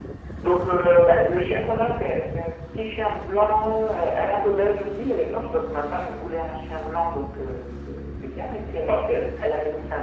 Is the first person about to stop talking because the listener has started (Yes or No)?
No